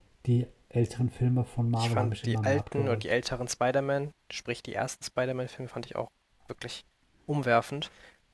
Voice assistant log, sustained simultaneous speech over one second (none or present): present